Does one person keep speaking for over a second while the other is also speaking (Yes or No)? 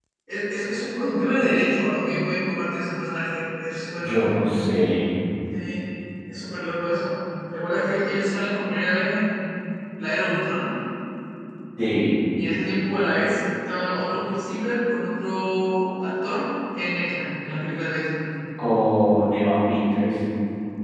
No